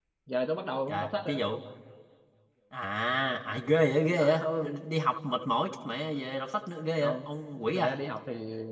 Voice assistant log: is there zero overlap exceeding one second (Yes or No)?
Yes